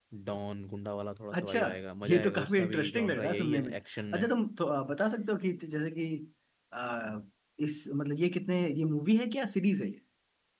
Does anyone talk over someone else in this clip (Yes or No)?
Yes